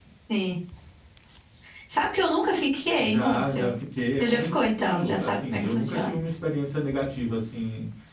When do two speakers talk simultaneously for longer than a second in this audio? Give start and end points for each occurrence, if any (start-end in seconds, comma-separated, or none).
3.0-6.1